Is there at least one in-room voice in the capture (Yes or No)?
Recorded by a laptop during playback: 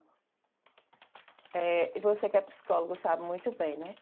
Yes